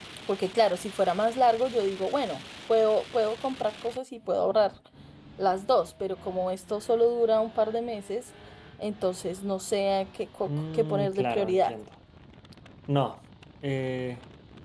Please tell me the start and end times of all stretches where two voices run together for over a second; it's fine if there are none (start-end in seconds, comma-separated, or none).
10.4-11.7